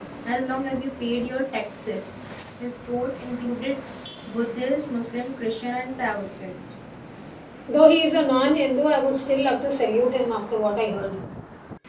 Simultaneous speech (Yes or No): No